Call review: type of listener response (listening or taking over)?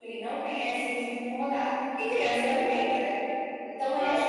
listening